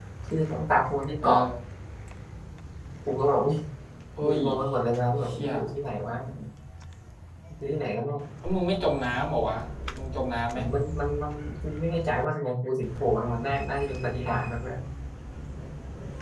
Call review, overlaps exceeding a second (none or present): none